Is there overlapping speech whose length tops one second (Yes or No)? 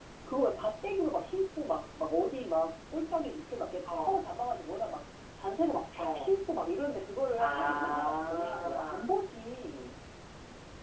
Yes